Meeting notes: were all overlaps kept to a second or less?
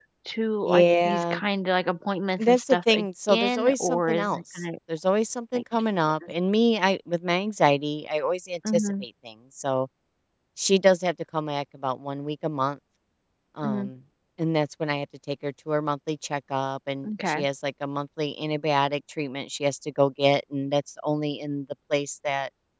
No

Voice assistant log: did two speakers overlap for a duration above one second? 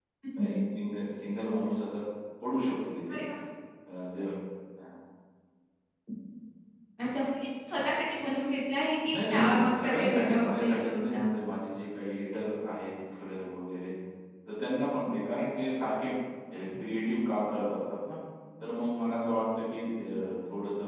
Yes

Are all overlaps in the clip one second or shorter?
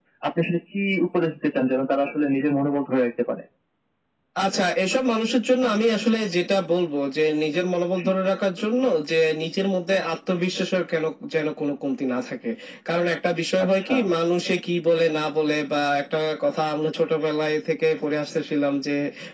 Yes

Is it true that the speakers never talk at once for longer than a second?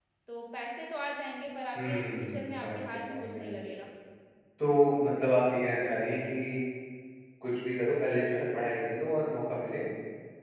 No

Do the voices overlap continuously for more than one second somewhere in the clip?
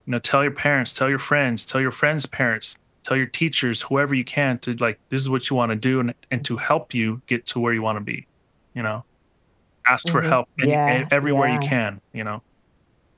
Yes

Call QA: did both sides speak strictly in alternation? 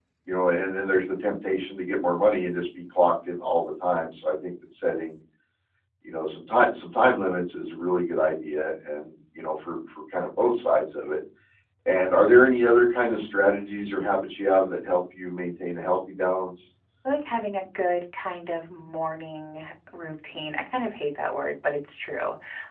Yes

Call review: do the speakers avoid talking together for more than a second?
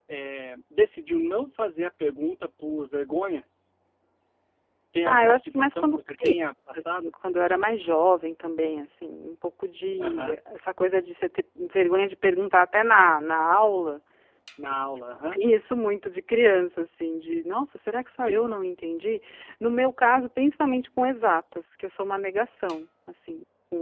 No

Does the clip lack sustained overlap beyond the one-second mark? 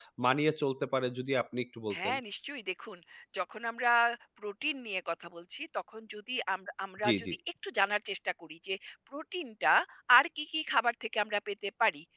Yes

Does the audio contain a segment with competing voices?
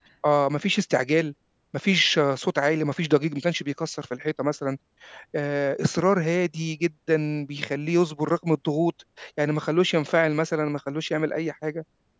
No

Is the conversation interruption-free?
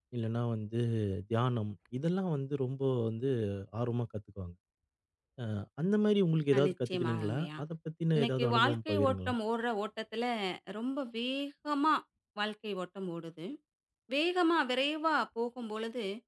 No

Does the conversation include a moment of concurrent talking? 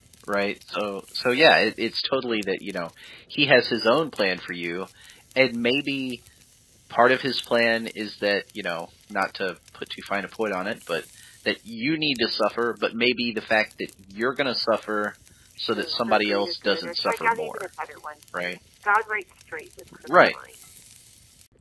Yes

